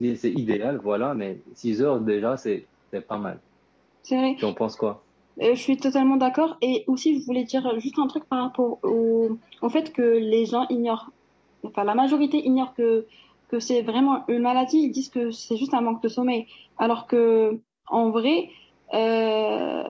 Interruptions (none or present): none